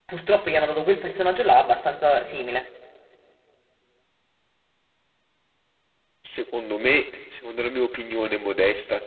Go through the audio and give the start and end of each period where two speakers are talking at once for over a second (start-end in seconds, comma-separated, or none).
none